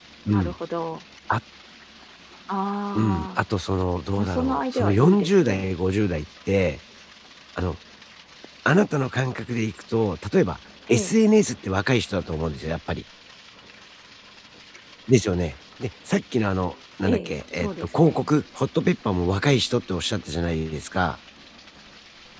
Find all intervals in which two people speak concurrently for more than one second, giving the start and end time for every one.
4.2-5.7, 17.1-18.3

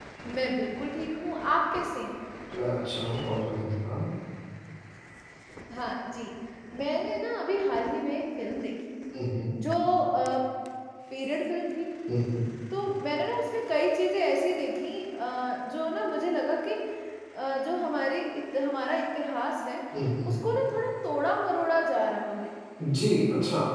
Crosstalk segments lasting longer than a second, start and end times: none

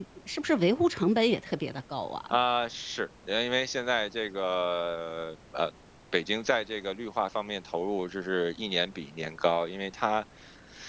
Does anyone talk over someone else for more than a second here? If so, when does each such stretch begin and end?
none

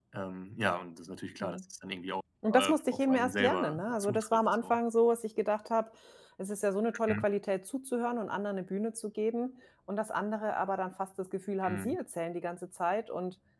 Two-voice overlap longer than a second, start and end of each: 2.6-4.8

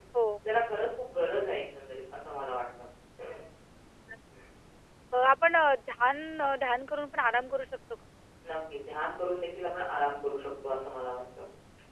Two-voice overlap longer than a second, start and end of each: none

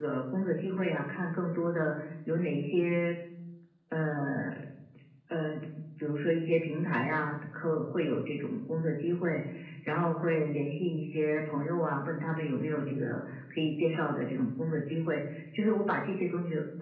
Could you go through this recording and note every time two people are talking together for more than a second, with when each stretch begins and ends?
none

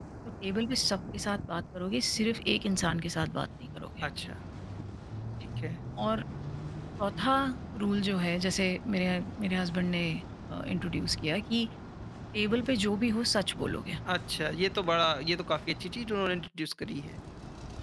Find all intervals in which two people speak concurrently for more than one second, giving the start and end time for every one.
none

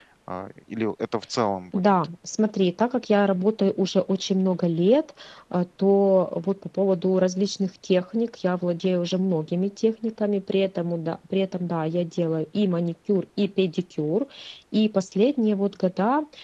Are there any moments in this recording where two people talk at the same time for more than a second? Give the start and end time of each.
none

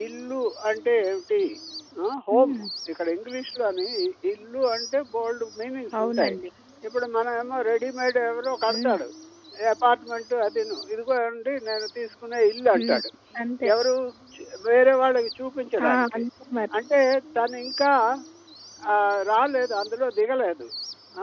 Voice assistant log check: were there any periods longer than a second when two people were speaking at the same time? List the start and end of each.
none

